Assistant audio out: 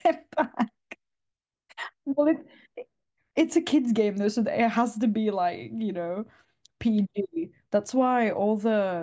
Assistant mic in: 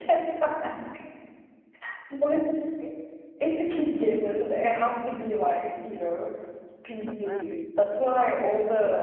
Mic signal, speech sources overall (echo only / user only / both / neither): both